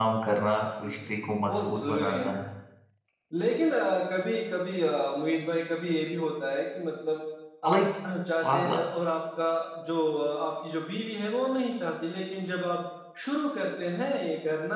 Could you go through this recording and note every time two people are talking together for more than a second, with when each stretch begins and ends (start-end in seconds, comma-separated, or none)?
0.8-2.2